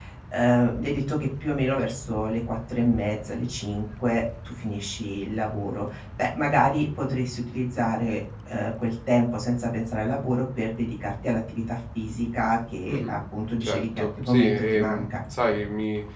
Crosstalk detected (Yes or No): Yes